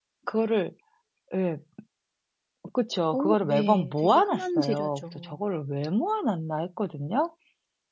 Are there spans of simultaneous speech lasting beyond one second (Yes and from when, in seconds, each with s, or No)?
Yes, from 3.1 s